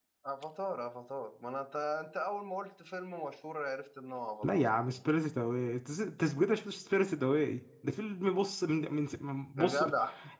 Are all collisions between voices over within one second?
Yes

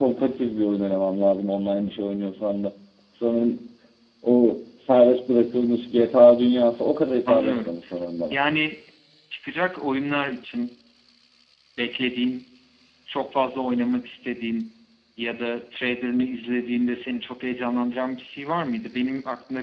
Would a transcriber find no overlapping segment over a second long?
Yes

